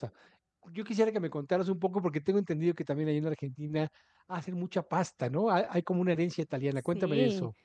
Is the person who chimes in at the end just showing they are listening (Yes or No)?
No